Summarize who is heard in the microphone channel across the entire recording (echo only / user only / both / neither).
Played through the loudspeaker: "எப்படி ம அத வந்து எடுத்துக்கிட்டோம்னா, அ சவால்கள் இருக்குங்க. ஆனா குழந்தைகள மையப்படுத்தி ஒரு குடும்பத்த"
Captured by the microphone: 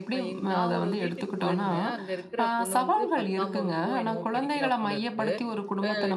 both